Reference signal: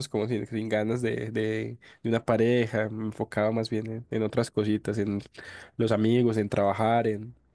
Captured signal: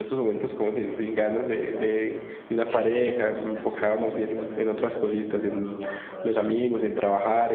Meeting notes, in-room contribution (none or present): present